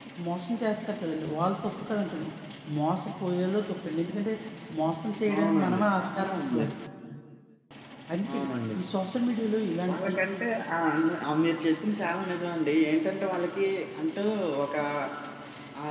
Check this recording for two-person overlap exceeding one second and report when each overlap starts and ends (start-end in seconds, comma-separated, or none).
5.3-6.7